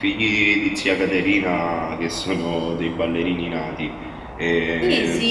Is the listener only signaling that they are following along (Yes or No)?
No